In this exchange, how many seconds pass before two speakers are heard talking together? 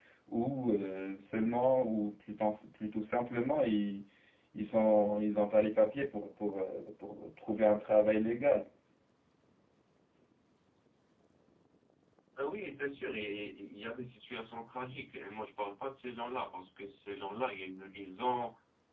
none

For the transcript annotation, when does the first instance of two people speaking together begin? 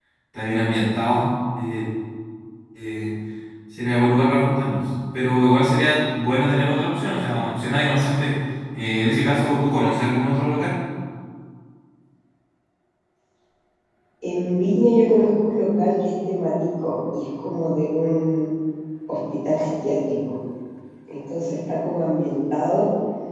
none

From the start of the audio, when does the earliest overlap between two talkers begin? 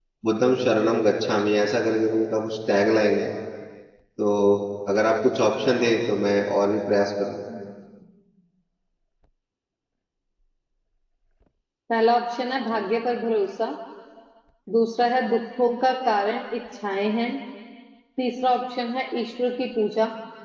none

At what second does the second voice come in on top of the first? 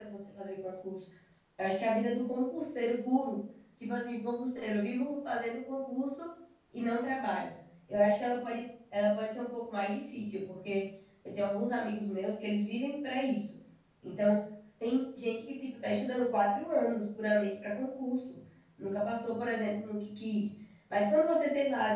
none

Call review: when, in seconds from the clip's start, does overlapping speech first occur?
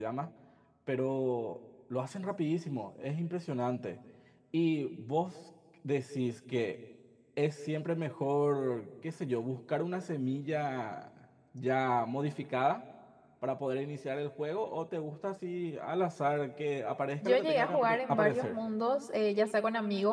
17.2 s

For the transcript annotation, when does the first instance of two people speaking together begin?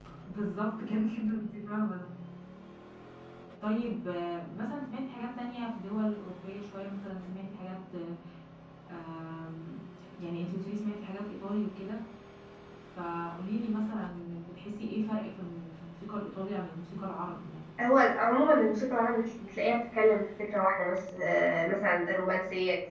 none

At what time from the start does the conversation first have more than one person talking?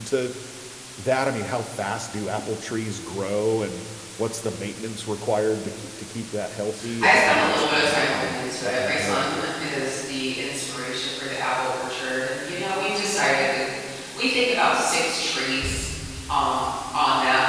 7.0 s

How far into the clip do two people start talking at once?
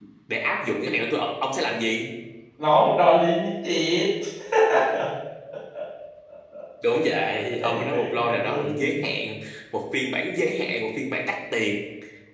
7.6 s

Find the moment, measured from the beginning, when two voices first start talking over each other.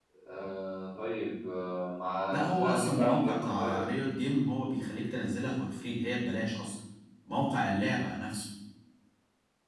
2.3 s

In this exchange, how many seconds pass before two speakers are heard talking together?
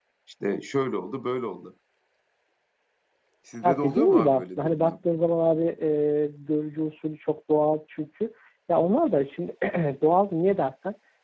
3.6 s

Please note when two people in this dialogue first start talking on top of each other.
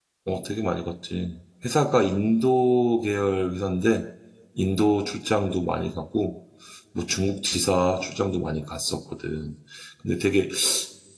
none

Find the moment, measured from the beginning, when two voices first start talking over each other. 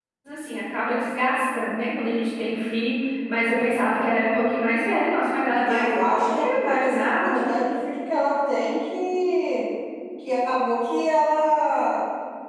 5.5 s

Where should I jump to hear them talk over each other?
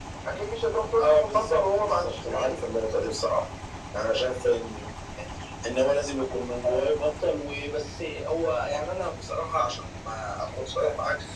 1.0 s

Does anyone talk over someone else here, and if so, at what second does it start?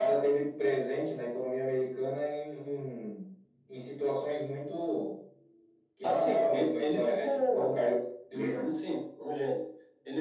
6.0 s

